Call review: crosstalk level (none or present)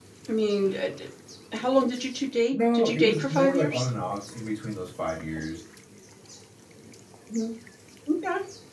present